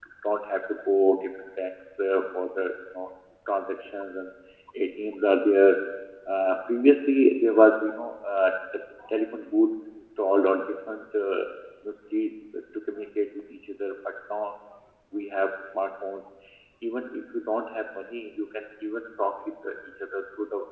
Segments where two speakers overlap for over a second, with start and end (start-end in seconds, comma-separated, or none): none